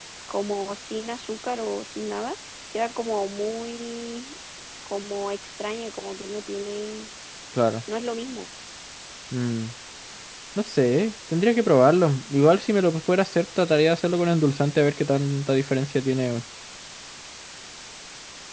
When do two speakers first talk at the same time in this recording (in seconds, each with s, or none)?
none